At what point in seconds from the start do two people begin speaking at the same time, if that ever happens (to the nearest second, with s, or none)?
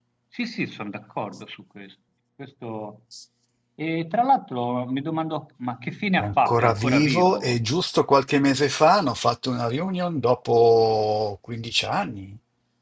6 s